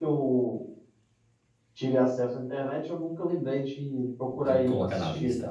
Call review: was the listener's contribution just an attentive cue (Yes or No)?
No